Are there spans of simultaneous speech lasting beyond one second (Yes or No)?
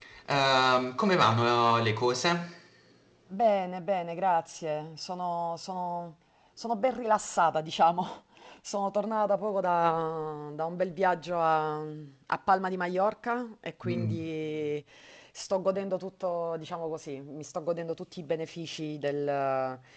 No